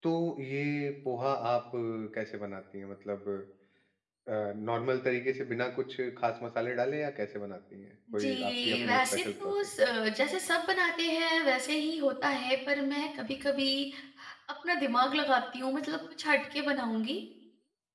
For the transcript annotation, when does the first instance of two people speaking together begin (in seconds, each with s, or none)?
8.1 s